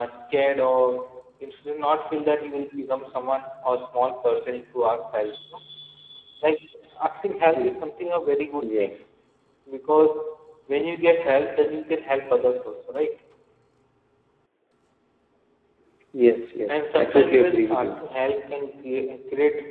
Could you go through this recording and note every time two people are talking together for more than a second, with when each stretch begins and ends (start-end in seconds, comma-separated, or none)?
16.7-18.0